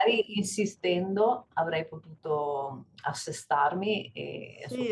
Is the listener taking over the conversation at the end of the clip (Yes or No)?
Yes